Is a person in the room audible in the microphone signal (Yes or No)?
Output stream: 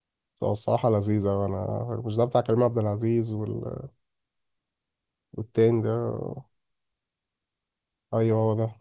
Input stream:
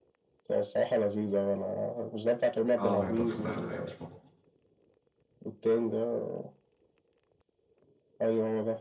Yes